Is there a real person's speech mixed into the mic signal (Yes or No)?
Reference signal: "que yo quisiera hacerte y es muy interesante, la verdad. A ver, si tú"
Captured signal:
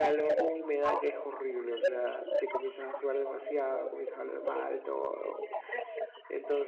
Yes